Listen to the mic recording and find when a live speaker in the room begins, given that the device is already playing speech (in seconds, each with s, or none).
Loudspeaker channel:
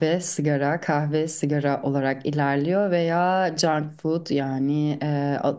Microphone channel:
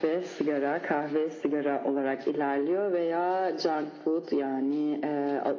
none